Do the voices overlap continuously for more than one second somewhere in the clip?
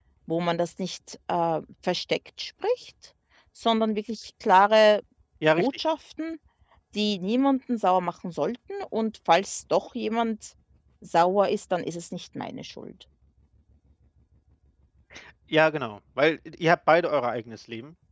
No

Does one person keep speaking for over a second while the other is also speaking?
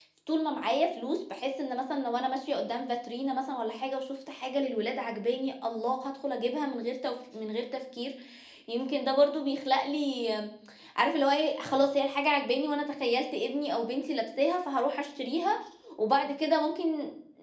No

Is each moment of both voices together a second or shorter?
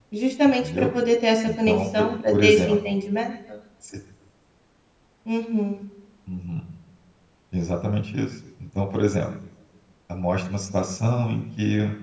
No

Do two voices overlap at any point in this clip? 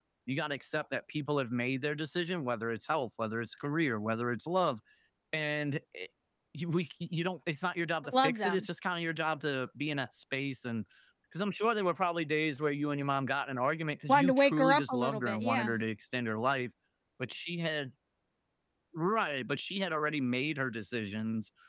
Yes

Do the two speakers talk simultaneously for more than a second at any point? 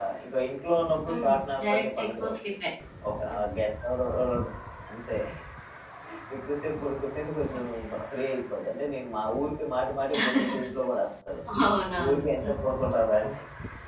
Yes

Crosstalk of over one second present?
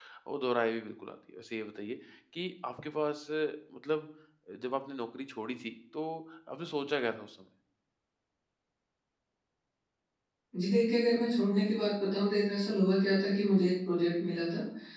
No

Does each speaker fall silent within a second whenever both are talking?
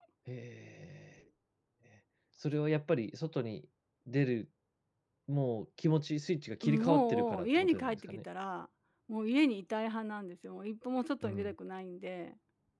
No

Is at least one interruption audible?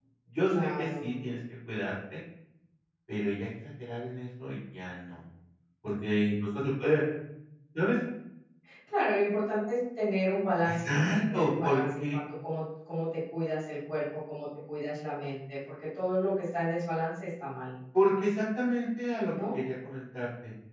Yes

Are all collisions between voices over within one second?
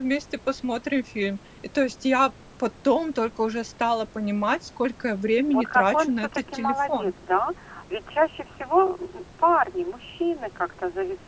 No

